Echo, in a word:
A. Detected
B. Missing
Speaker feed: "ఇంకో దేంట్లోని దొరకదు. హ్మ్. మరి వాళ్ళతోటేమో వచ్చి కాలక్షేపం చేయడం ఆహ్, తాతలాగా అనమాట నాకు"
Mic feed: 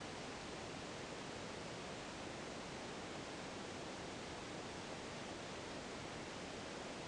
B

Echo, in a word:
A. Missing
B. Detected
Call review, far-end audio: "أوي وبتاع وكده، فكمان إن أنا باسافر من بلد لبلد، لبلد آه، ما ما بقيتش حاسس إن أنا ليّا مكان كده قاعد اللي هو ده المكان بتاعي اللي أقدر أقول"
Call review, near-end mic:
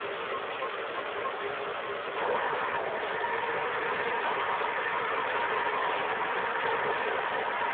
A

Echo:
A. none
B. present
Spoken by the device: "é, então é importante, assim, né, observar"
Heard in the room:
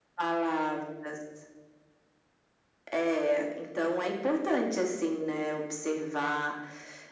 B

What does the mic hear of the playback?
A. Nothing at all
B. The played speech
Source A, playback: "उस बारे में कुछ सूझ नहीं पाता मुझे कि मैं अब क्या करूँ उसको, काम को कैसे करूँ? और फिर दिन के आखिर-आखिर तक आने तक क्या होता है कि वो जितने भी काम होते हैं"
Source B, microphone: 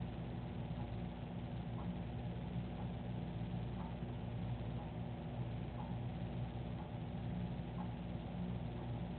A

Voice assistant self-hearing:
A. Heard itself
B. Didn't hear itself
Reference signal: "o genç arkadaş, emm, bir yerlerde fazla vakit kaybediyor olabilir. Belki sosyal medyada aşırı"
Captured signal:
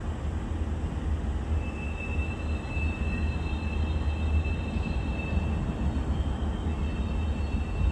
B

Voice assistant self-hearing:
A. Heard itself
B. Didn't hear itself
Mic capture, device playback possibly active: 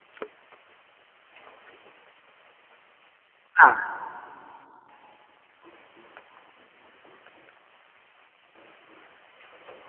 B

